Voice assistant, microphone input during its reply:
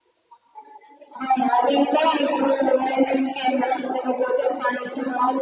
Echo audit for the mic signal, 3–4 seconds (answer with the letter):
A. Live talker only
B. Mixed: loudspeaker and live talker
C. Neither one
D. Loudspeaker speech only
D